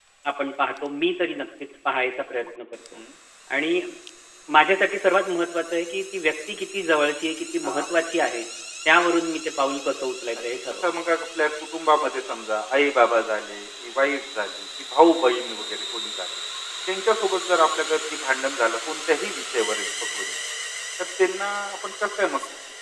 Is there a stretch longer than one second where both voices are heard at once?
No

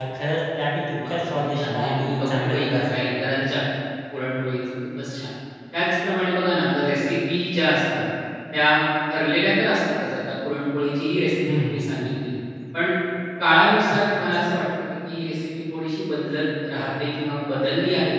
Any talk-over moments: Yes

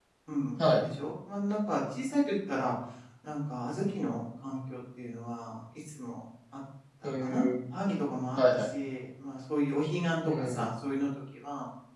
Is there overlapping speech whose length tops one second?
No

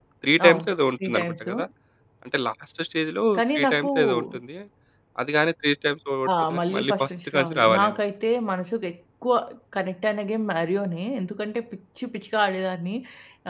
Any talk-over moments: Yes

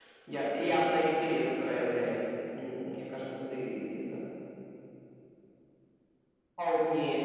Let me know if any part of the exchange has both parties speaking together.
No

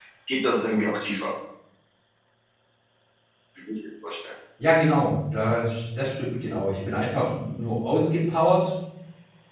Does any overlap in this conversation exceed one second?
No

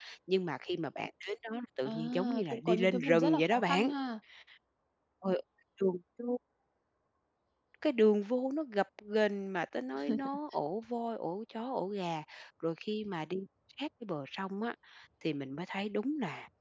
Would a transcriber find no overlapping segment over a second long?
No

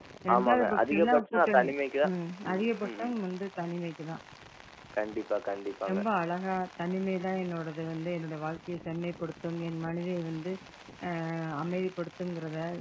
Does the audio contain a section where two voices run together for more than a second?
Yes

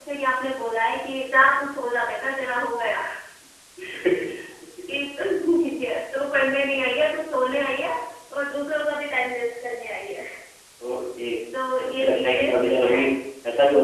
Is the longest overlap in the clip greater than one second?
Yes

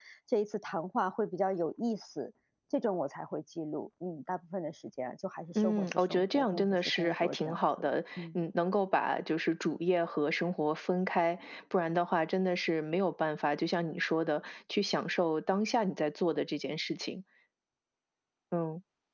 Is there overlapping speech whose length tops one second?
Yes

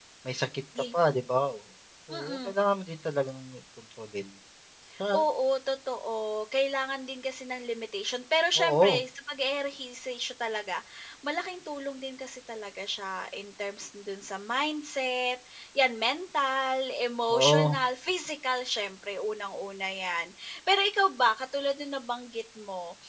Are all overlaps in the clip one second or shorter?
Yes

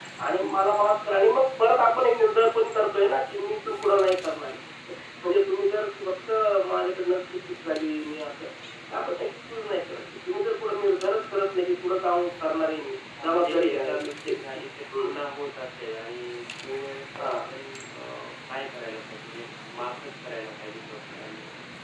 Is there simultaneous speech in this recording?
Yes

